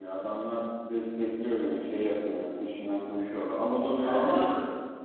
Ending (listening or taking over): taking over